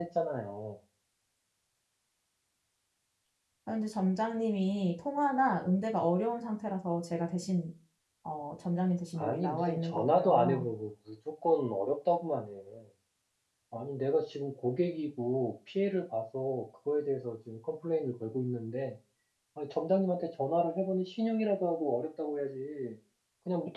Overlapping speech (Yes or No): Yes